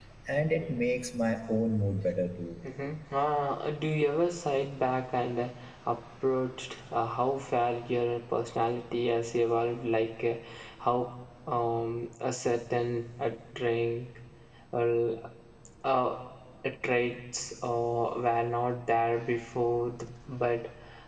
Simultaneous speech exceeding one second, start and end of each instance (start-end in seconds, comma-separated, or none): none